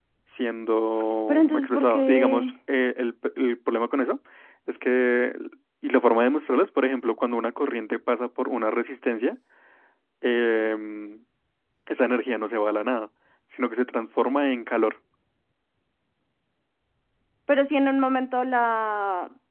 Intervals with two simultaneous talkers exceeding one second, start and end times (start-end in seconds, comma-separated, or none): 1.3-2.5